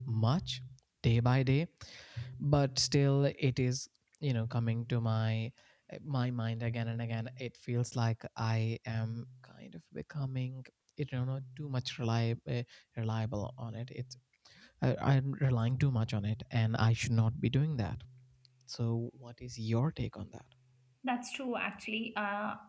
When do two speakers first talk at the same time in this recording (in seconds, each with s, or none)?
none